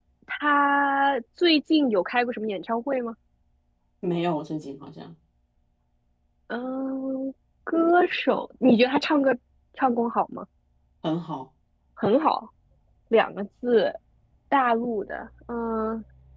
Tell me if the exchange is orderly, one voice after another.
Yes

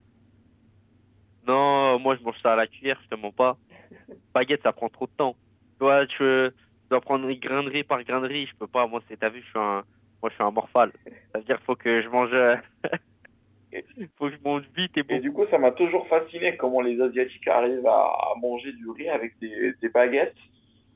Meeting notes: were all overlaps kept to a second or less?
Yes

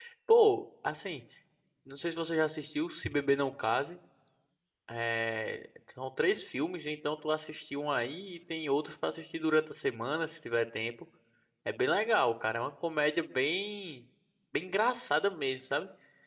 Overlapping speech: No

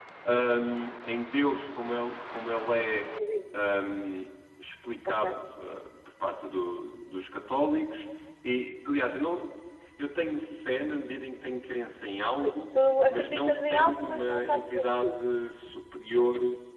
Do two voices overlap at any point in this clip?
Yes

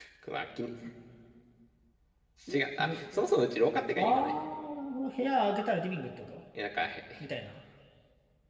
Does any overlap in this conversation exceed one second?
No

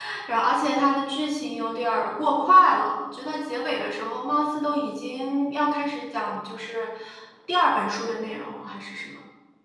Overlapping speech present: No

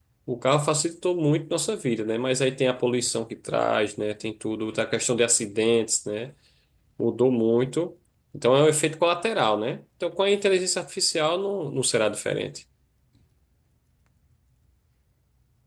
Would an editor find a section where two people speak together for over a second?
No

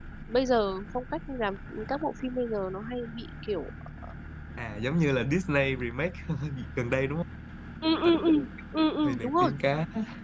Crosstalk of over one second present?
No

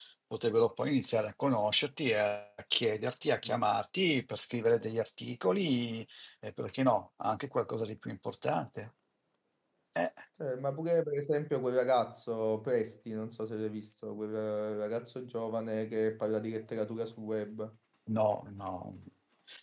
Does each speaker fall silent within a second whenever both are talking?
Yes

